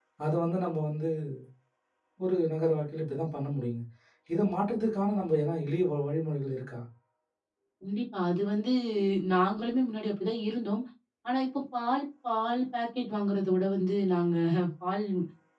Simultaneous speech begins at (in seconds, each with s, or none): none